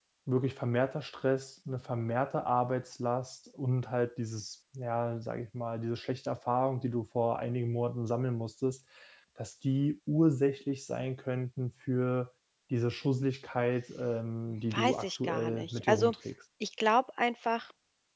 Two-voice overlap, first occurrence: 14.7 s

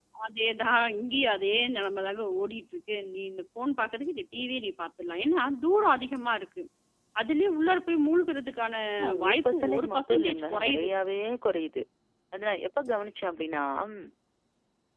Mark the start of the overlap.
9.2 s

